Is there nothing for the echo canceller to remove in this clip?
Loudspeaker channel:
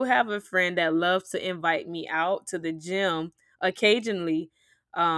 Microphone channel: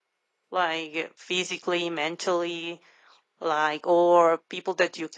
Yes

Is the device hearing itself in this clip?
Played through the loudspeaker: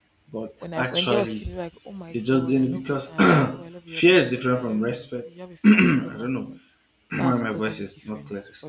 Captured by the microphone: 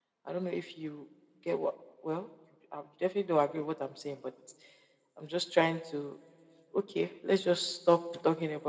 No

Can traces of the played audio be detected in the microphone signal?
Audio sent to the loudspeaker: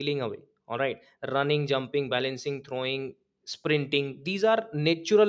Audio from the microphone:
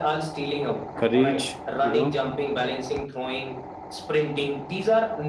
Yes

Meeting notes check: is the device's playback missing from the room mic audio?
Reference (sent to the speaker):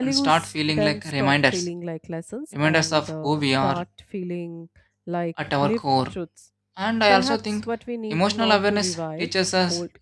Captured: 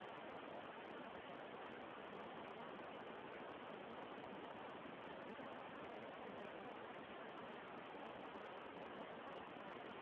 Yes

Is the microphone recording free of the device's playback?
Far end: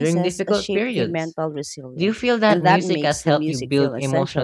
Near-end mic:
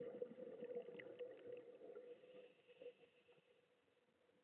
Yes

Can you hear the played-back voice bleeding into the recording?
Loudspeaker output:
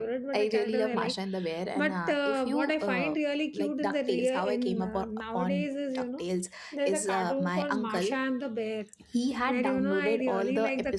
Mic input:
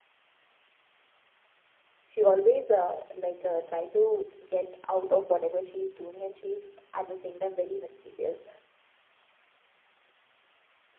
No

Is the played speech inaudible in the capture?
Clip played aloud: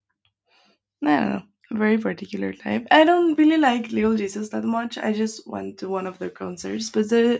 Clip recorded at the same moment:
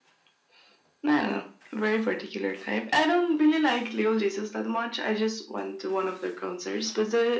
No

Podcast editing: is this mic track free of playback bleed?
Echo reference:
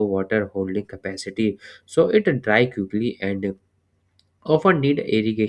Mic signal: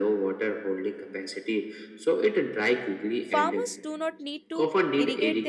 No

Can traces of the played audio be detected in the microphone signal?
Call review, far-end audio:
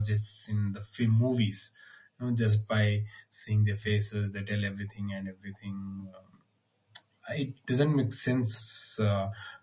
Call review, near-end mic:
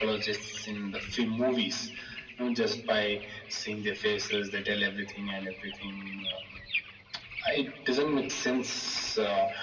Yes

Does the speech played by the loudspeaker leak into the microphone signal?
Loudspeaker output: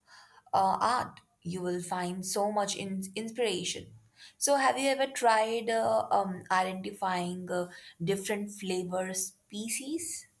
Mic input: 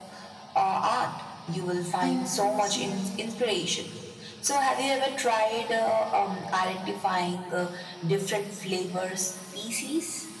Yes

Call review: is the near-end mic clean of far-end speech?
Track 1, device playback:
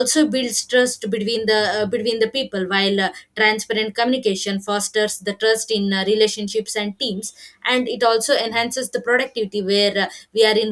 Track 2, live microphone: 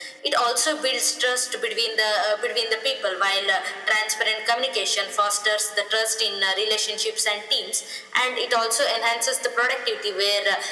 No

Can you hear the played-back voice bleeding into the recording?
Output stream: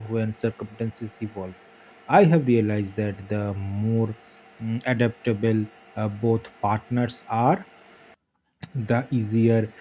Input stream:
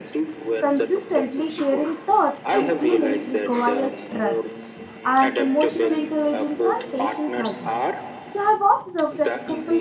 Yes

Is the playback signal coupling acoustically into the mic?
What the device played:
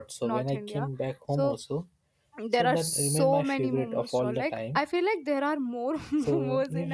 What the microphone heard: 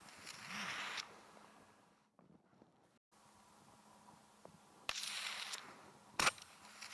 No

